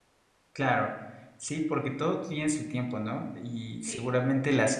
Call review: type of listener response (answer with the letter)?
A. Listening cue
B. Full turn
A